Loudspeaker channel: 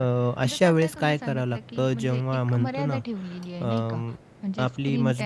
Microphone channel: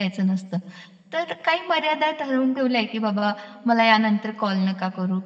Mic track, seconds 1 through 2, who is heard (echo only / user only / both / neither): user only